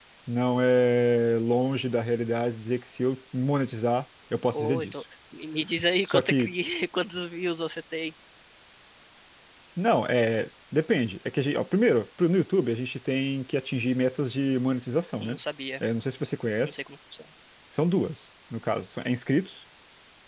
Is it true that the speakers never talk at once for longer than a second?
Yes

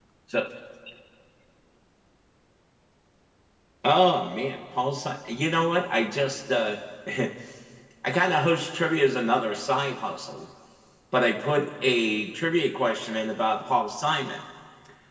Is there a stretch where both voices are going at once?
No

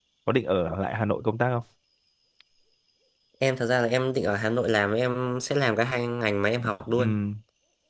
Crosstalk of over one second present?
No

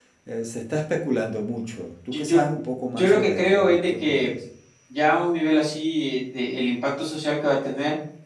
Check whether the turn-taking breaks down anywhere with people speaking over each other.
Yes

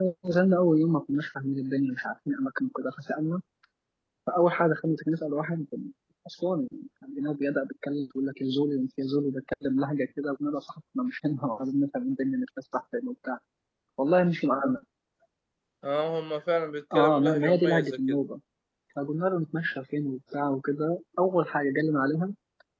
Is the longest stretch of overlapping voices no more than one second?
No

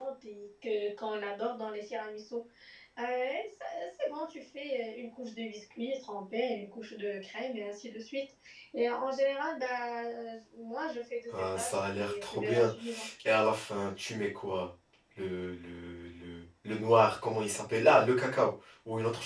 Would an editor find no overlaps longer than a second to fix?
No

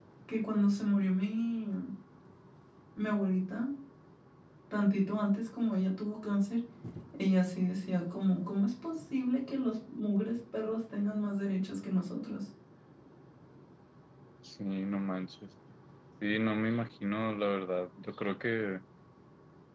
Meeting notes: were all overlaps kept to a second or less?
Yes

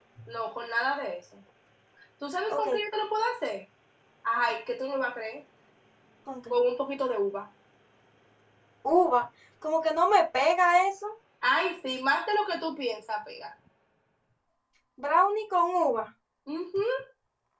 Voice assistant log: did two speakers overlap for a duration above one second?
No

